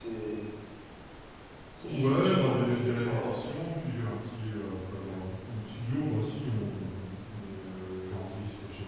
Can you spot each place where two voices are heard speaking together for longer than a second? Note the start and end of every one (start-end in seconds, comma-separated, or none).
1.8-3.4